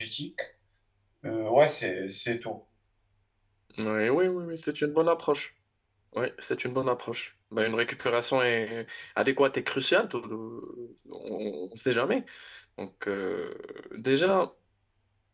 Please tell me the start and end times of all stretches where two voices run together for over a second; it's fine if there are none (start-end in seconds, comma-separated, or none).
none